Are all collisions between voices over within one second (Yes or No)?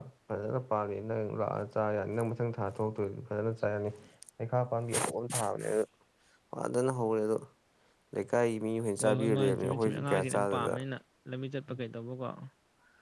No